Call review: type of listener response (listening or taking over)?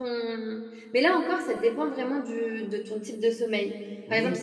taking over